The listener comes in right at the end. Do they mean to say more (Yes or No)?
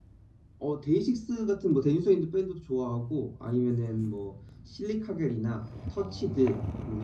No